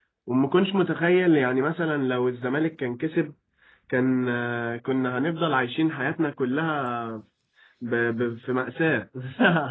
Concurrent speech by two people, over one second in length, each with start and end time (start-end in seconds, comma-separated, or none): none